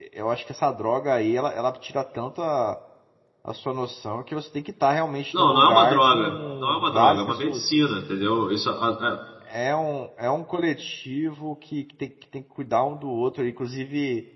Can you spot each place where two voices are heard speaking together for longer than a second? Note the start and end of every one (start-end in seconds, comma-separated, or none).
5.3-7.6